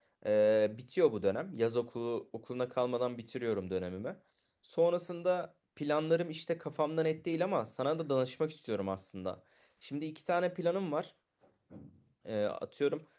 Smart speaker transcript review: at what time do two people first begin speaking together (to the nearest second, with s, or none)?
none